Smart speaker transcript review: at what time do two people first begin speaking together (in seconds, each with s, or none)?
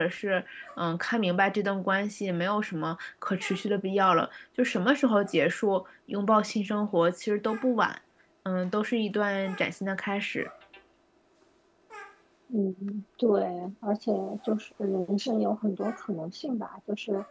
none